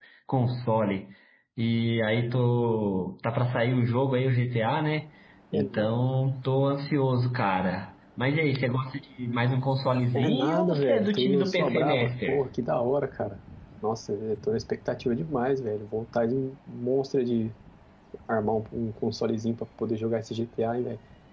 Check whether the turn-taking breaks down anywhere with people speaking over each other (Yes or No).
Yes